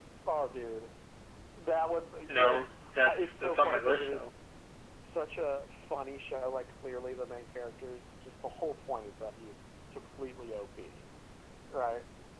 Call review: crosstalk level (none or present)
present